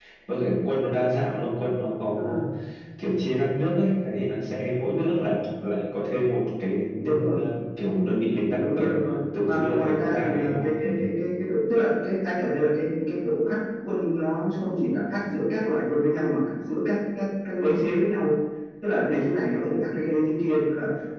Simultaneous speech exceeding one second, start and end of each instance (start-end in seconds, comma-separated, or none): 9.4-10.9